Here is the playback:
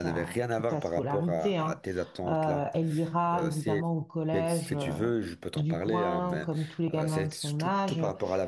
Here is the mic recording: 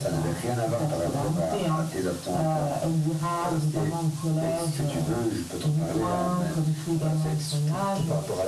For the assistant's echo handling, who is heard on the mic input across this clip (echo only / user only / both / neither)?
echo only